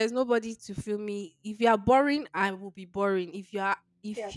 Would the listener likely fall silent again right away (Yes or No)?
Yes